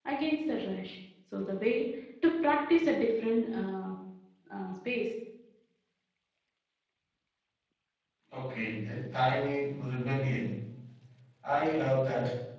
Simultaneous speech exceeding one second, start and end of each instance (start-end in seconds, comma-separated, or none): none